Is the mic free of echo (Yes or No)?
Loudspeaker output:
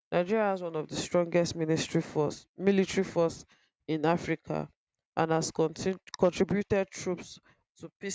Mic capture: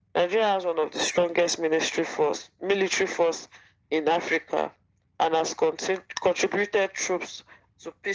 No